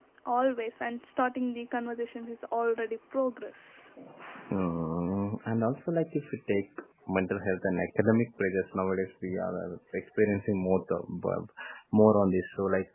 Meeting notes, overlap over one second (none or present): none